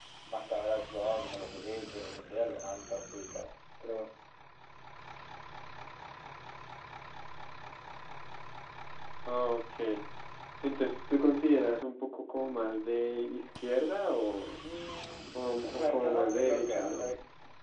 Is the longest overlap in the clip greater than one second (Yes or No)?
Yes